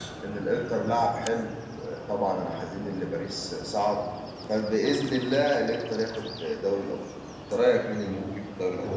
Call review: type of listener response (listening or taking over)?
taking over